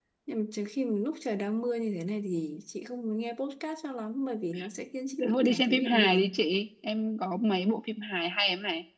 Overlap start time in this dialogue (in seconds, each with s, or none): 5.2 s